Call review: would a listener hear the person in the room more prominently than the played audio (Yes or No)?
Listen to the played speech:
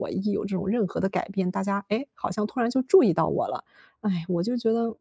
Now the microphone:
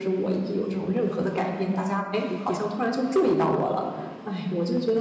No